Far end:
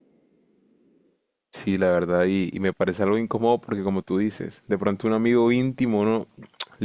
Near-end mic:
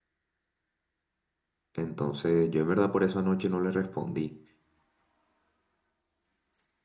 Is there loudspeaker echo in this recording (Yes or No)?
No